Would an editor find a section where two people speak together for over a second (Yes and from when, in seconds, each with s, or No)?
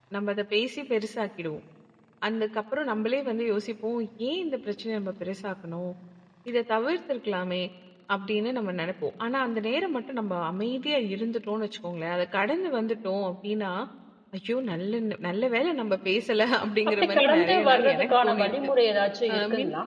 Yes, from 16.9 s